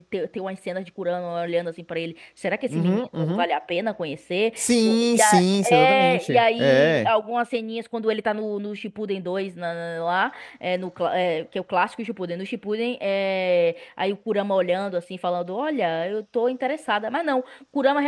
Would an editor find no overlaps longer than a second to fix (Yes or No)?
No